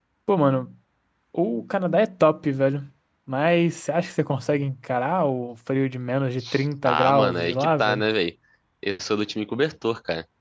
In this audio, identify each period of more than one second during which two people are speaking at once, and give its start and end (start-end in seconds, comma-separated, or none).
6.8-8.1